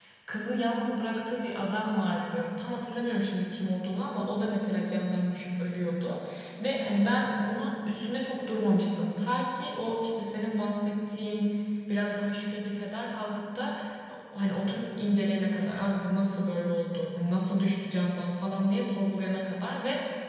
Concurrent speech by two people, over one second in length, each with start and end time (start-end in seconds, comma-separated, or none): none